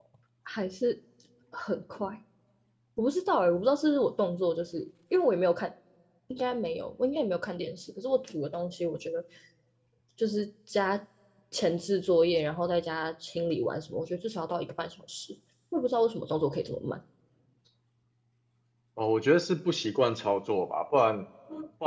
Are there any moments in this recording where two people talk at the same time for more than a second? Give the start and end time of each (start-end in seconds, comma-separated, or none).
none